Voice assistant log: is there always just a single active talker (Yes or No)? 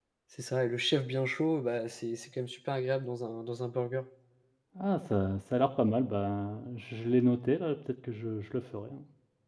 Yes